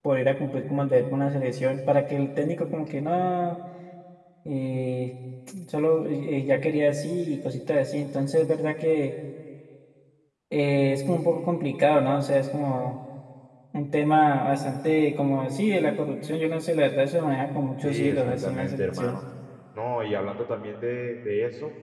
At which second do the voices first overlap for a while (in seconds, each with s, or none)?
17.8 s